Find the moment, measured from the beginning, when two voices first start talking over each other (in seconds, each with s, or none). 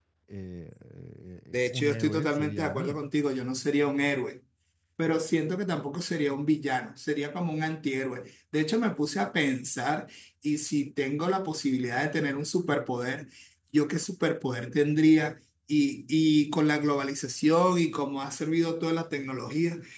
1.5 s